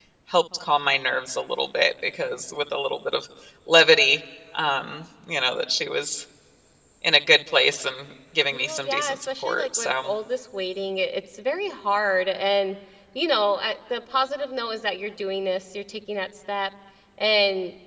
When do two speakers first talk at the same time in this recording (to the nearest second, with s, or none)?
9 s